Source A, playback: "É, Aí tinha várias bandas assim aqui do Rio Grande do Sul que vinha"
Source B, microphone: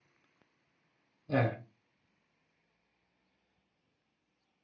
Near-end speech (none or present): present